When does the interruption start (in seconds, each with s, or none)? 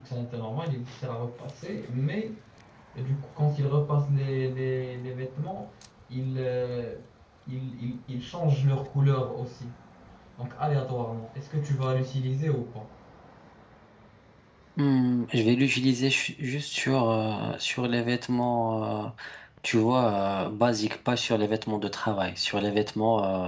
none